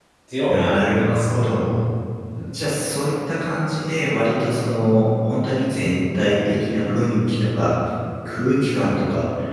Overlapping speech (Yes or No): Yes